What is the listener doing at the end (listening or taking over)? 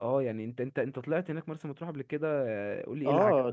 taking over